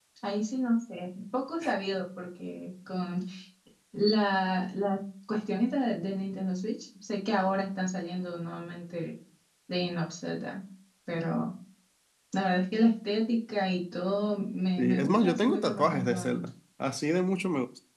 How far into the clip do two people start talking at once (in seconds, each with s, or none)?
14.8 s